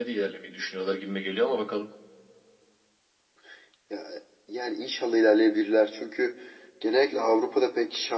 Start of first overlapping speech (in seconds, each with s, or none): none